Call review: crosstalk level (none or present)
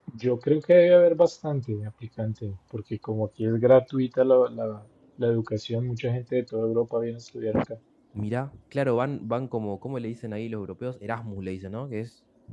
none